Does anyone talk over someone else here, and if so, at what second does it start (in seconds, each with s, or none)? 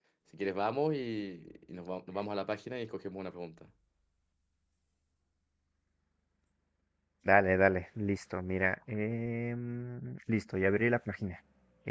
none